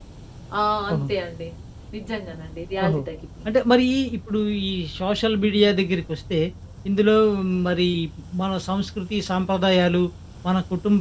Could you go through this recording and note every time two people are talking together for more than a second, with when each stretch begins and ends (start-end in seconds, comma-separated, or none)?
none